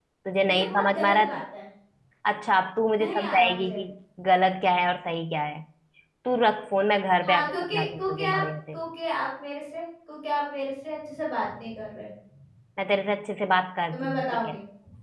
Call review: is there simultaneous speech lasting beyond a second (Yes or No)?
Yes